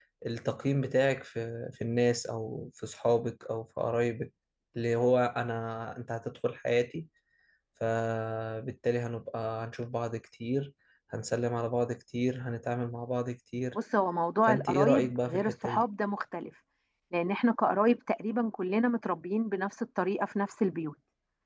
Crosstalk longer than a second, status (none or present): present